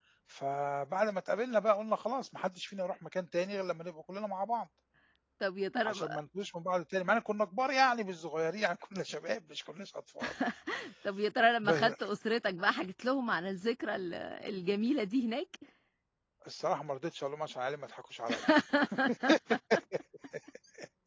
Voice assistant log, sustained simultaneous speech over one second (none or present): none